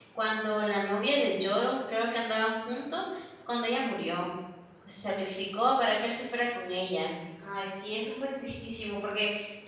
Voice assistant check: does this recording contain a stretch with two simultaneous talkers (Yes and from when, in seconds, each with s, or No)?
No